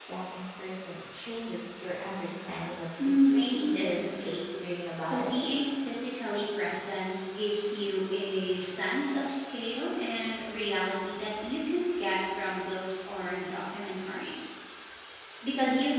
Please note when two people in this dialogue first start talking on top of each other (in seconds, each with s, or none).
3.0 s